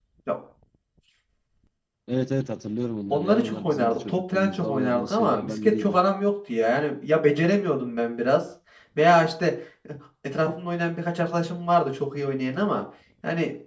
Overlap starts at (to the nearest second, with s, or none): 3 s